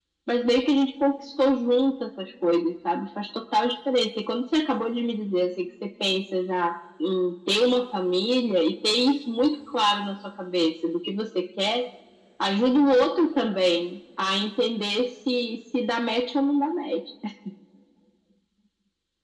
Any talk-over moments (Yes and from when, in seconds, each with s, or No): No